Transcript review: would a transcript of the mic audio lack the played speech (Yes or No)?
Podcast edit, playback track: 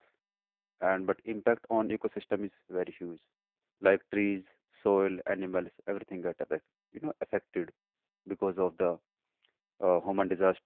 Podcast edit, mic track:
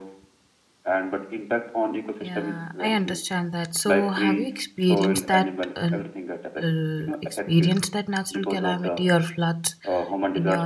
No